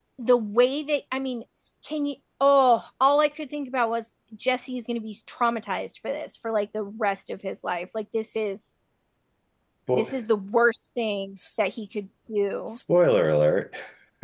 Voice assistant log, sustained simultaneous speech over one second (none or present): none